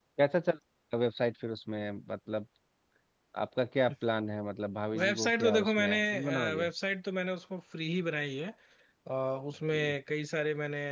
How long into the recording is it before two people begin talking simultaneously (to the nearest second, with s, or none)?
5 s